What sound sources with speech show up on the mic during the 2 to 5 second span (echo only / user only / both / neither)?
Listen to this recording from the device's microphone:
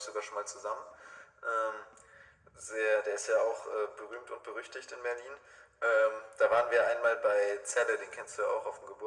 echo only